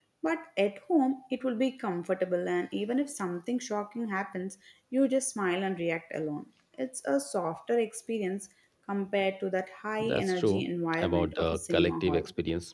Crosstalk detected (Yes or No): Yes